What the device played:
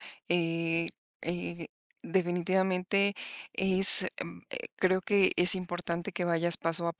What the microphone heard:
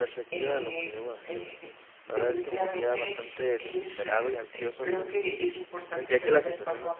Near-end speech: present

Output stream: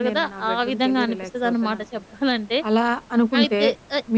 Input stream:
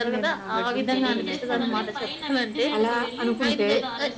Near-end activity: present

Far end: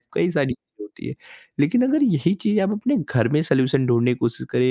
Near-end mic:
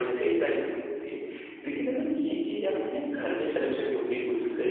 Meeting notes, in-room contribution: none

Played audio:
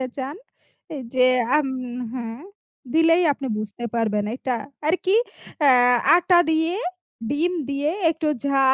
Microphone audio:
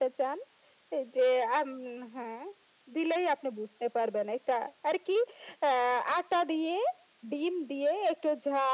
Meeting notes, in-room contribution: none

